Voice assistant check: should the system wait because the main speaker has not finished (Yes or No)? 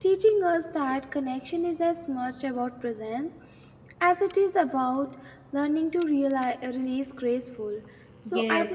No